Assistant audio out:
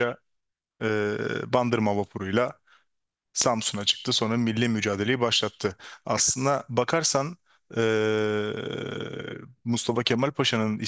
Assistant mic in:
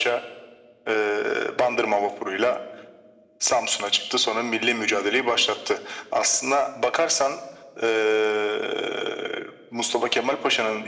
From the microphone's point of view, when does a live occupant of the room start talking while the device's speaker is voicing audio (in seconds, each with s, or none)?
none